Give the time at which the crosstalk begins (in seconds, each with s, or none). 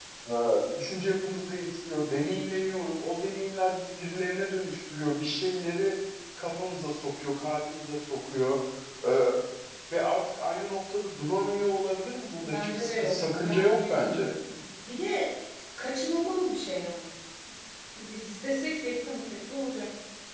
12.4 s